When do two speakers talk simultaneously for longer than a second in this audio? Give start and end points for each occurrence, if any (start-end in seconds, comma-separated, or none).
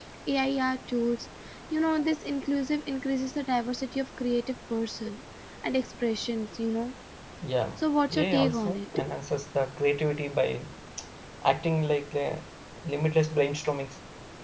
7.8-9.0